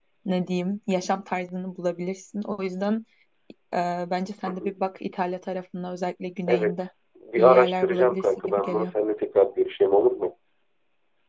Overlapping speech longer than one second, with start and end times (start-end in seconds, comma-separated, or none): 7.4-8.9